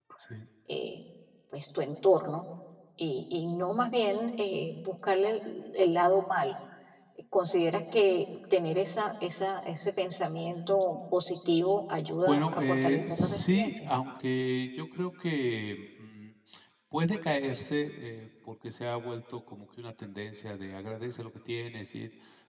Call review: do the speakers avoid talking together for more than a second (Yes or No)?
No